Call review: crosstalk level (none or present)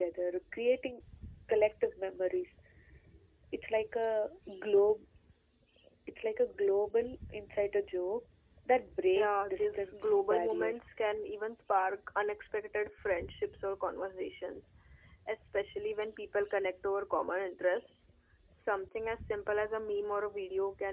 present